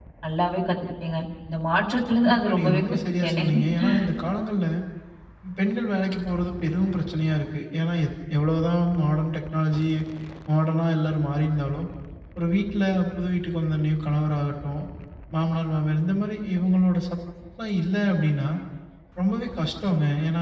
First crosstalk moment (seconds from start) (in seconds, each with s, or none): 2.2 s